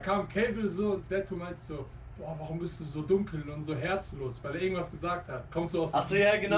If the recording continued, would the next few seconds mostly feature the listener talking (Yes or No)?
Yes